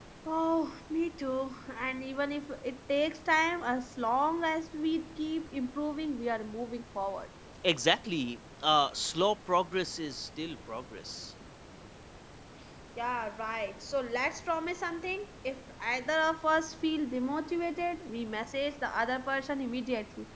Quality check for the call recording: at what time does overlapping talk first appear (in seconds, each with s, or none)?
none